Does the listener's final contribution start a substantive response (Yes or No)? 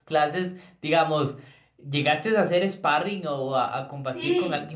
Yes